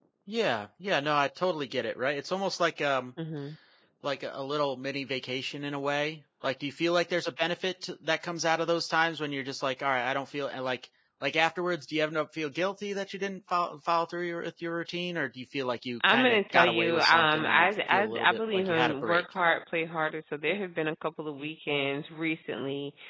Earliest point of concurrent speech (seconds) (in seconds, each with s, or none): 16.0 s